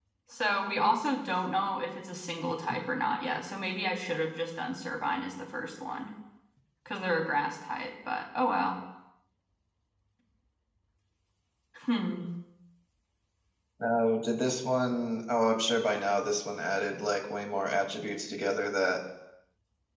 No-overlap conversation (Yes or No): Yes